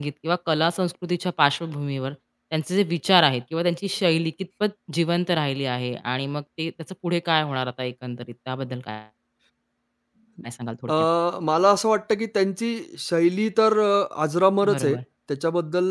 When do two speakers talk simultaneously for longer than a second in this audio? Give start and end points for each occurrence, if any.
none

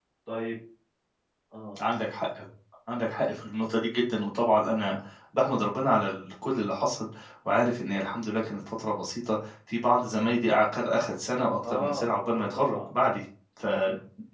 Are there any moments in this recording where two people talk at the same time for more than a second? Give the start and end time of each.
11.6-12.9

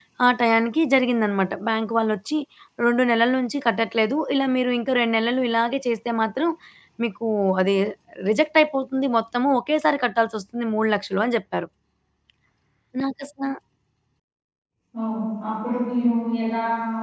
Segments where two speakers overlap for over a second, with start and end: none

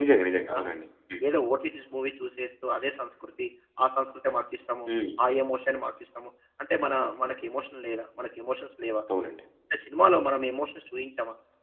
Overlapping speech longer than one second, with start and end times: none

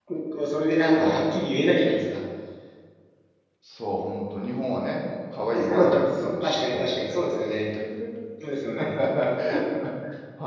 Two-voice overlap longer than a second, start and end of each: 5.6-7.2

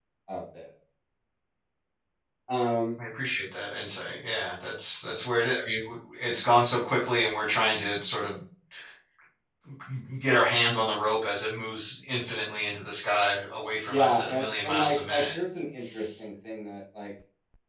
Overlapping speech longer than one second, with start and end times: 13.9-15.4

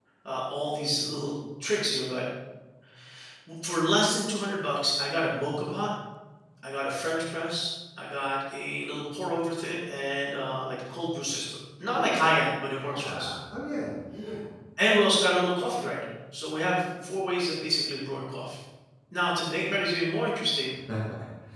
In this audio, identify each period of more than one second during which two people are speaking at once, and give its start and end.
none

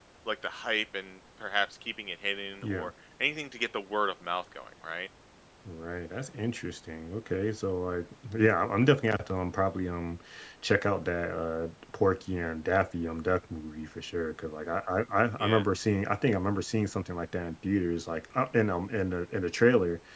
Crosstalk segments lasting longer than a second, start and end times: none

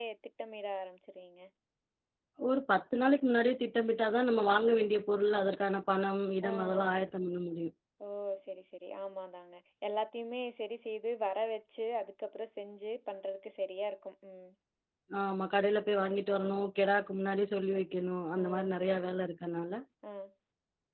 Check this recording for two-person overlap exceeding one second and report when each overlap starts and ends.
none

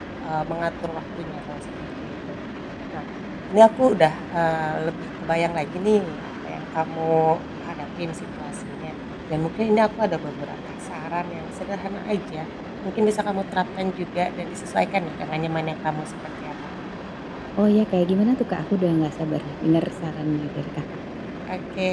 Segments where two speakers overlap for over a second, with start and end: none

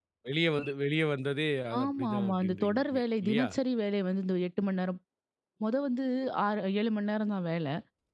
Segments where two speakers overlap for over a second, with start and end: 1.8-3.5

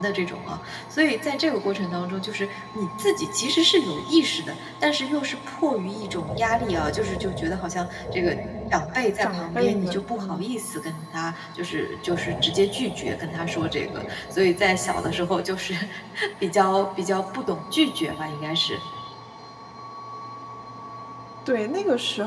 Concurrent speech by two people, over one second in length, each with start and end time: 9.2-10.5

